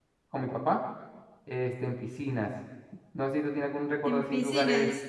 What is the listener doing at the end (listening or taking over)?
listening